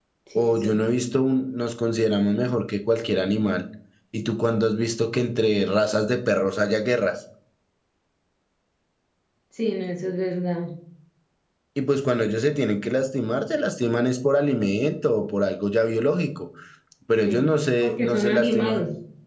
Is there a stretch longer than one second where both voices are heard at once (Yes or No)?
Yes